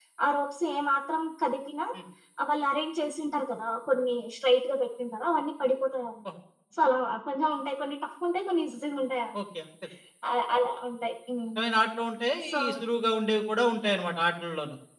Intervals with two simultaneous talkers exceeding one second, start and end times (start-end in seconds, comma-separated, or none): none